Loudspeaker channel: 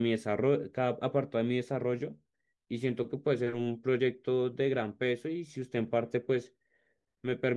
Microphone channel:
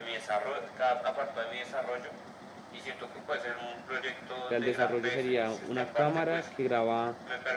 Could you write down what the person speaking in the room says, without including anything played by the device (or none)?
O sea, el desarrollo sería una cámara que graba